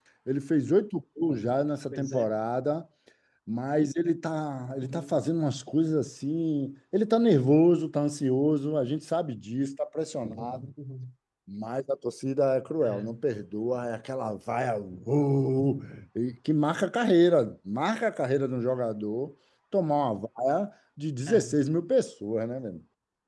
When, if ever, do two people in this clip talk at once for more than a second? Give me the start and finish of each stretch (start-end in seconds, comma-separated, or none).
none